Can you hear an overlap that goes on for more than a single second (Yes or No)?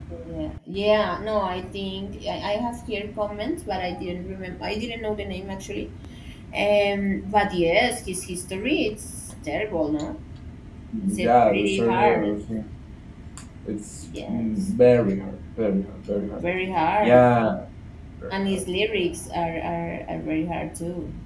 Yes